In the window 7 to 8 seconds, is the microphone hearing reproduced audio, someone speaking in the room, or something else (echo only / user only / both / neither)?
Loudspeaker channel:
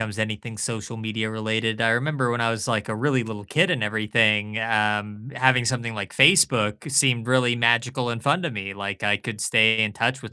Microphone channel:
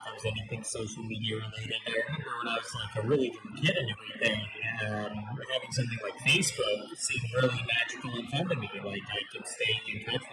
echo only